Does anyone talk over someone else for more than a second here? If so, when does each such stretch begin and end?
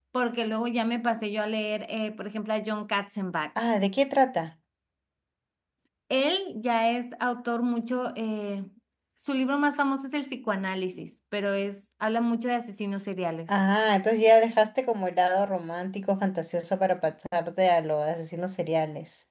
none

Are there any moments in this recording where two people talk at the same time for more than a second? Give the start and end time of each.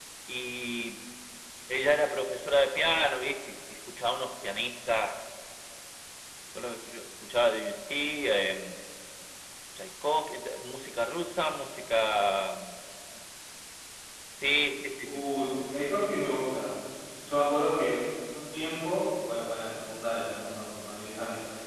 none

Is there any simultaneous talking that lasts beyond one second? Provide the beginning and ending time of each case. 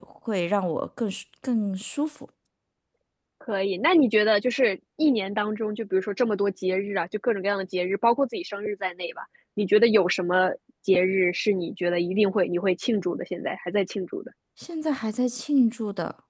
none

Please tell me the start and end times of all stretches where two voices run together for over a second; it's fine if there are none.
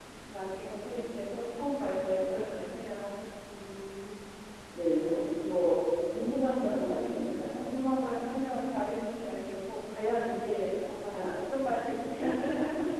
none

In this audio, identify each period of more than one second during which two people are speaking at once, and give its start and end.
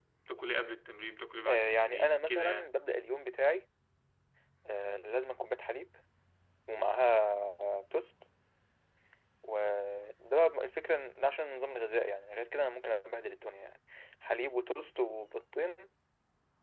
1.5-2.7

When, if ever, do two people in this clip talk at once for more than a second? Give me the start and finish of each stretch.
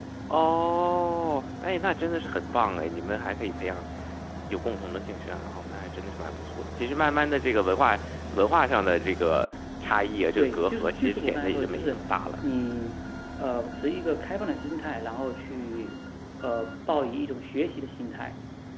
10.4-12.0

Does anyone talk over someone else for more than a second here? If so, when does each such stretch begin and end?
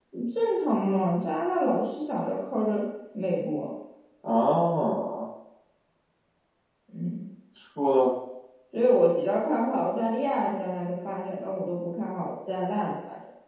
none

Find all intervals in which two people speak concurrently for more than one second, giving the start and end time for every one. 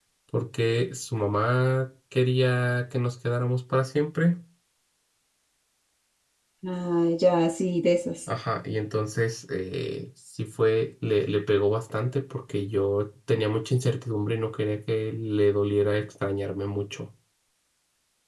none

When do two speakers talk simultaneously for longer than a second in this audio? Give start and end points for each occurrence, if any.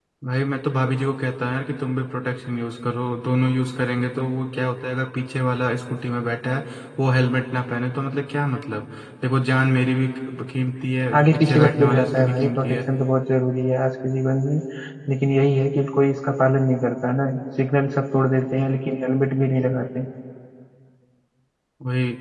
11.1-12.8

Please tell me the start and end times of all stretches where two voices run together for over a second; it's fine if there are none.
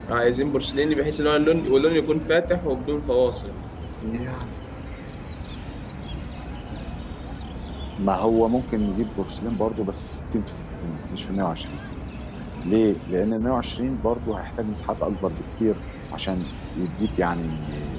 none

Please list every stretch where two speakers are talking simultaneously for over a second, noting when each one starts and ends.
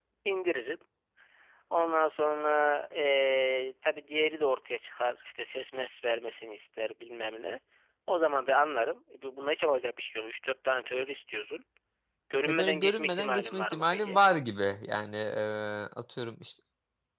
12.5-14.2

